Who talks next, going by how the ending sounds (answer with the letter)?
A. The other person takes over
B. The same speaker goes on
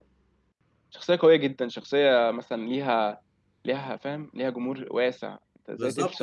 A